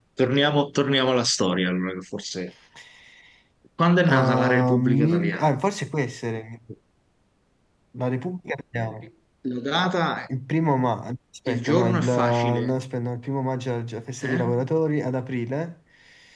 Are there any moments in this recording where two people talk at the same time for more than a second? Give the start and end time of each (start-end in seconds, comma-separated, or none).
4.2-5.5, 11.5-12.7